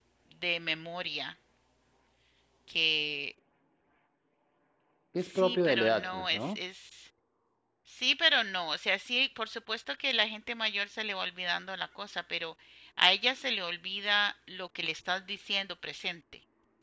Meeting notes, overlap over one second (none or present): present